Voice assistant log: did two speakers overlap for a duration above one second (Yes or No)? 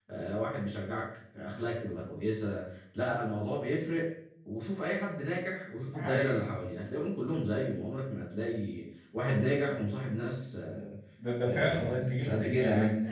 Yes